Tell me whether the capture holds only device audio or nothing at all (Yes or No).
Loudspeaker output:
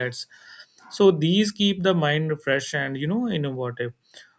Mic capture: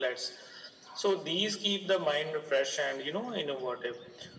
Yes